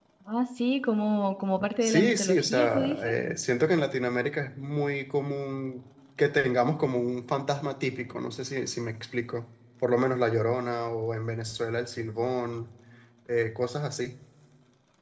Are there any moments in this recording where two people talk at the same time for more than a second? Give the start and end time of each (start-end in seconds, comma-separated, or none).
1.8-3.1